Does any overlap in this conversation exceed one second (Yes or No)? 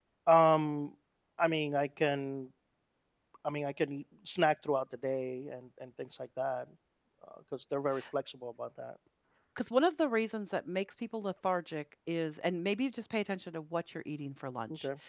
No